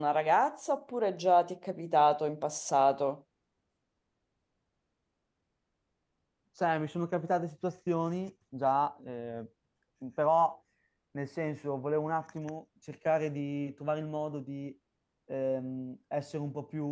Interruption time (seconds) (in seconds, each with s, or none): none